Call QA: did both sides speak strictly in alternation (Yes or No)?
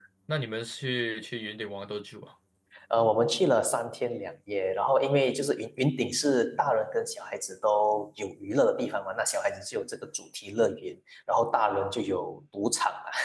Yes